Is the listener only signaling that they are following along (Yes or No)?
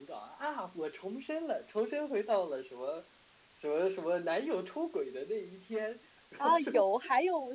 No